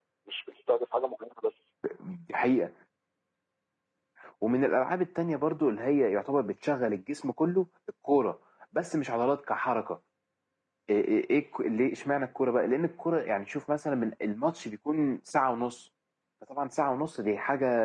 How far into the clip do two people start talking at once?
none

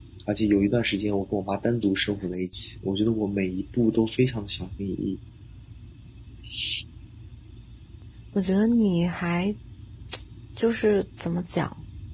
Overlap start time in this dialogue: none

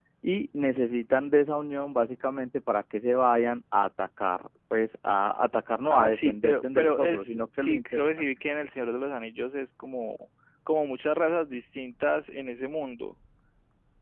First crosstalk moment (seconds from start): 6 s

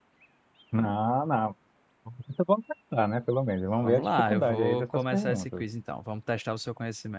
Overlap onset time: 4 s

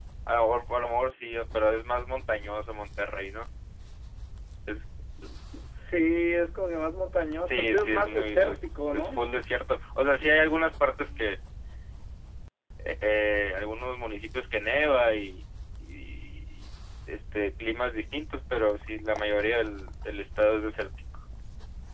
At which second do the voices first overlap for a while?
7 s

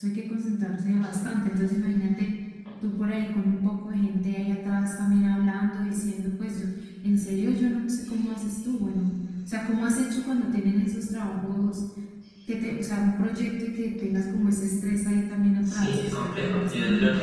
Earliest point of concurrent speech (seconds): 16 s

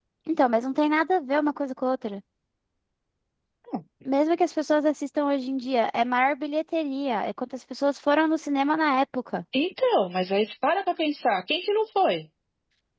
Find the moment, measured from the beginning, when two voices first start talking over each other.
none

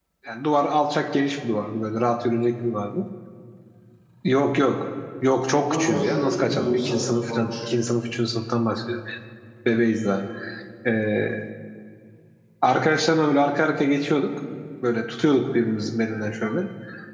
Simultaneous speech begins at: 6 s

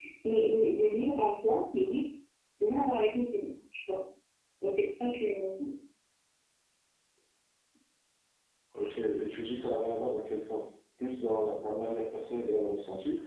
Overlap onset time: none

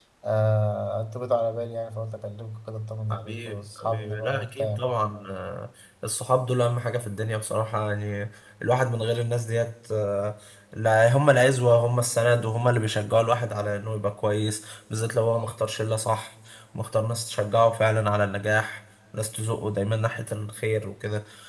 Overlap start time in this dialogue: 3 s

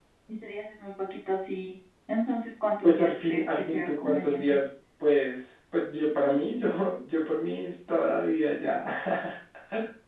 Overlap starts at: 3 s

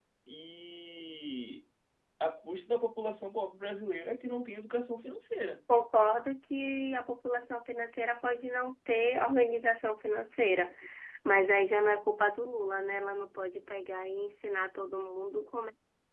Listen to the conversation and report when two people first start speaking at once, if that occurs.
none

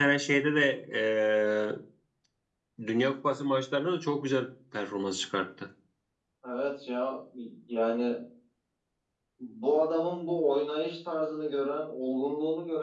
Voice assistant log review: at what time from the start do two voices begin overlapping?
none

